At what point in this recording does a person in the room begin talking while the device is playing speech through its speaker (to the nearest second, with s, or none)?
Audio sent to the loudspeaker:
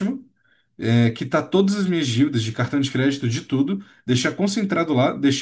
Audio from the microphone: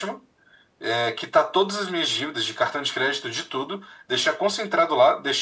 none